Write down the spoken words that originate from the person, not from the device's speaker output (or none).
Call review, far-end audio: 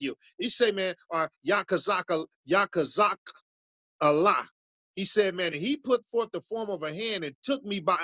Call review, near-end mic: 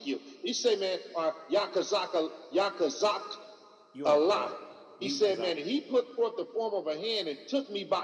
You on uh mute Kazak.